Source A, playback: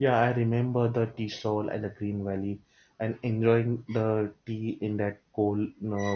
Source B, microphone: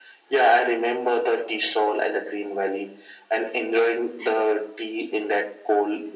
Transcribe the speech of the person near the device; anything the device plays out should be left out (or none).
none